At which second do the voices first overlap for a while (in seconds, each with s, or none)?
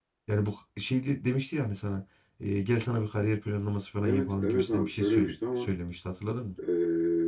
4.0 s